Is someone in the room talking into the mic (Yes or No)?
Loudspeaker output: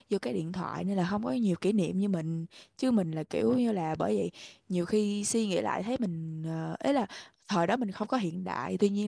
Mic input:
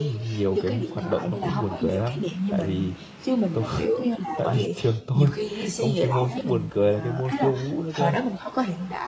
Yes